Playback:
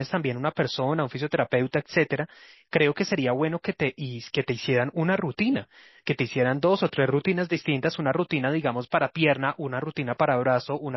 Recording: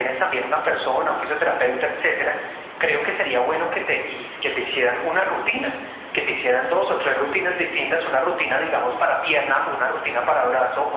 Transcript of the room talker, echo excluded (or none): none